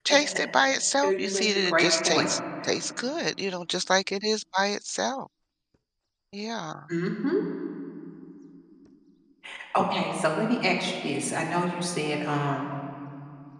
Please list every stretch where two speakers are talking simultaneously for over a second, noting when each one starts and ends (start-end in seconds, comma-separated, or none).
1.0-2.2